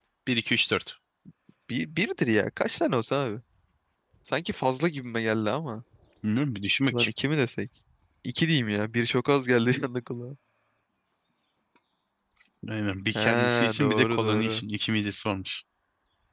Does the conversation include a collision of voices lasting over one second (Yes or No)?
Yes